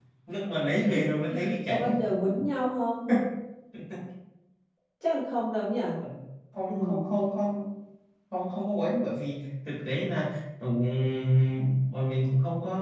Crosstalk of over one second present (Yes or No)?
No